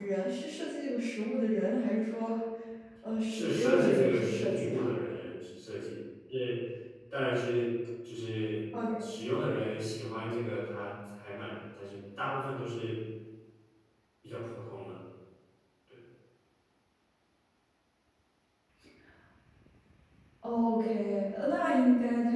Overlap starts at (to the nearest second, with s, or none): 3 s